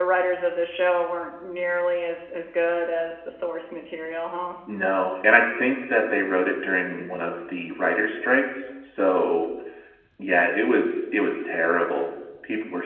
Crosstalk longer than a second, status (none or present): none